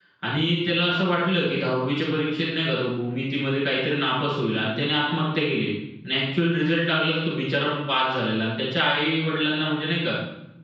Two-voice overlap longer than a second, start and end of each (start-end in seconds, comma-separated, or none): none